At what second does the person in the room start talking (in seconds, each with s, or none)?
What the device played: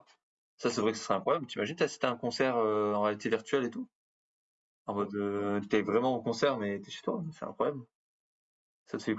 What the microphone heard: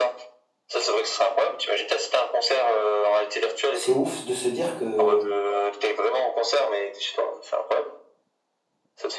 3.7 s